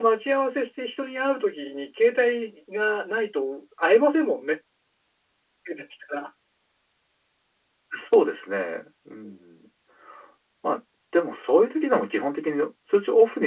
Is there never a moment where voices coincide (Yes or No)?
Yes